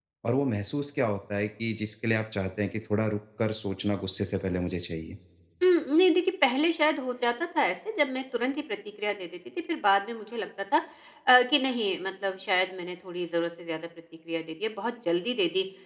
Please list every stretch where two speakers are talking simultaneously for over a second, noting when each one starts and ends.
none

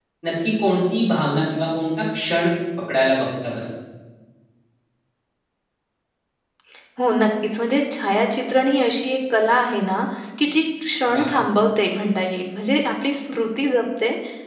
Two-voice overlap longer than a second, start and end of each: none

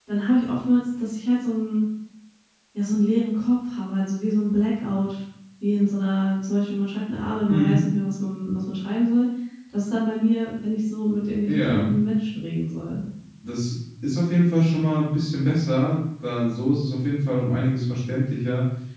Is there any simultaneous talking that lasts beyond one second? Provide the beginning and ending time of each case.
none

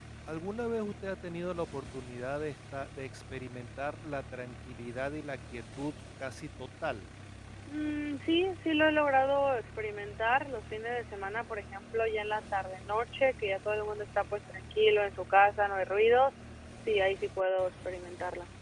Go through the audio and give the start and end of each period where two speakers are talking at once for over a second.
none

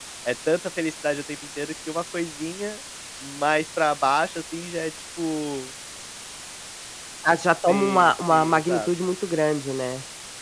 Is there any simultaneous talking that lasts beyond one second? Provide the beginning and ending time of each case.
7.7-8.9

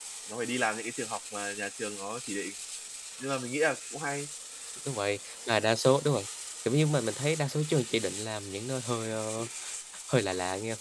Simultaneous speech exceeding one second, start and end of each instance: none

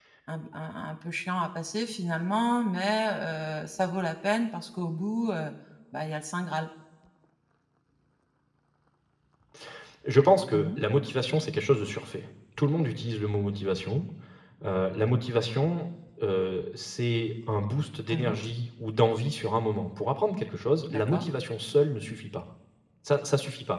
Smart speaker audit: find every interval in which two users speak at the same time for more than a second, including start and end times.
none

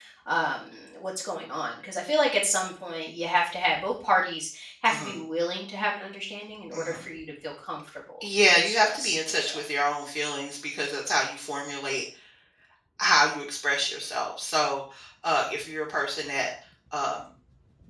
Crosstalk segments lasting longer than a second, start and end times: 8.4-9.6

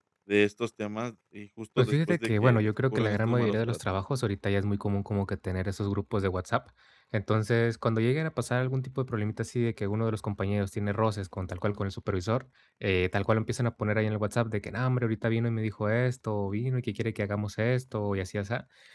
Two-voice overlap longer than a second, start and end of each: 1.8-3.8

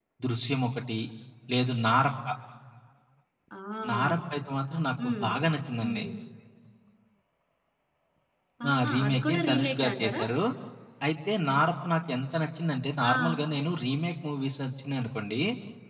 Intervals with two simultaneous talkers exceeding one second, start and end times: 8.7-10.2

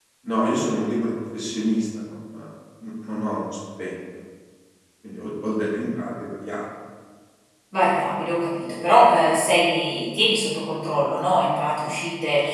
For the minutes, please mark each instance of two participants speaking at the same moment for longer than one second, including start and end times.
none

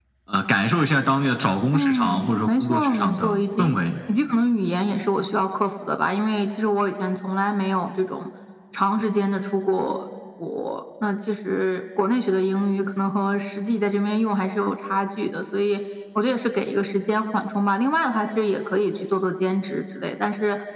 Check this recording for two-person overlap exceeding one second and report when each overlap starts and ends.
1.7-3.8

